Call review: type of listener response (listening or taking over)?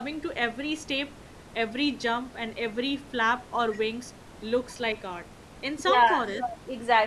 taking over